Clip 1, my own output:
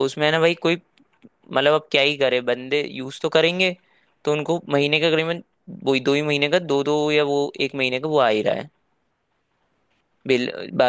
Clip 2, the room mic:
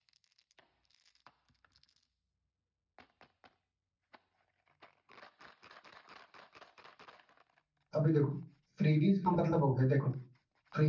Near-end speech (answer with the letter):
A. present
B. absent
A